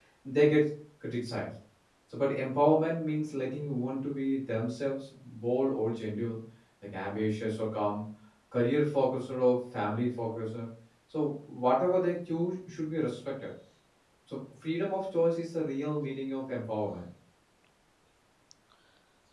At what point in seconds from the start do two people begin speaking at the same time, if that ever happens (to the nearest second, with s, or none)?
none